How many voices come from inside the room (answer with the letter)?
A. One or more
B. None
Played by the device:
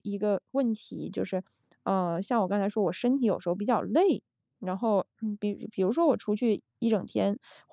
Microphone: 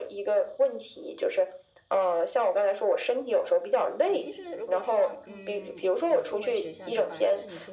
A